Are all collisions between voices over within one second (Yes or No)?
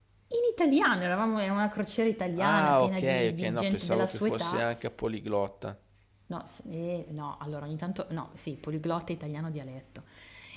No